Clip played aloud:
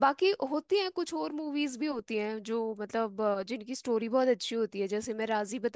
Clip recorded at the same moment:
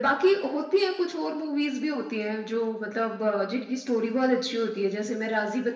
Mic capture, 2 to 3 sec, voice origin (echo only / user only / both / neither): echo only